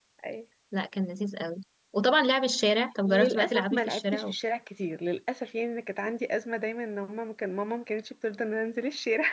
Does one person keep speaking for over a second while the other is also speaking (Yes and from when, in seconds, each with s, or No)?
Yes, from 3.1 s